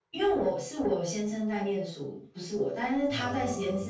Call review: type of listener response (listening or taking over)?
listening